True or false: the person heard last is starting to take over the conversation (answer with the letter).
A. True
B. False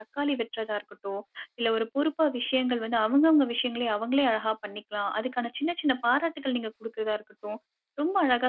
B